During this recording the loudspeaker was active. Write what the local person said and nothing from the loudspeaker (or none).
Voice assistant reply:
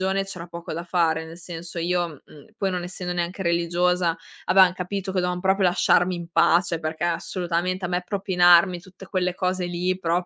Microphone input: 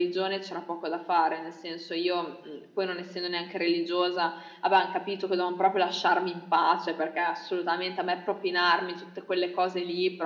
none